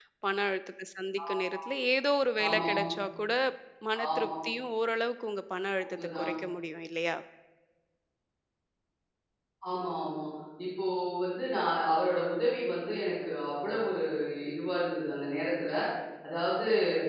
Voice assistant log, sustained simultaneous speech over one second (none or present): none